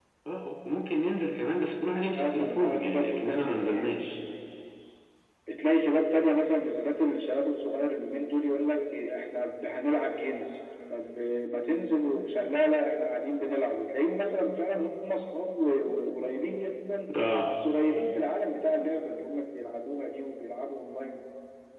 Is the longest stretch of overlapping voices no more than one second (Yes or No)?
No